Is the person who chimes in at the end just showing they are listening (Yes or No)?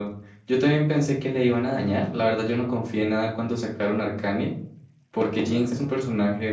Yes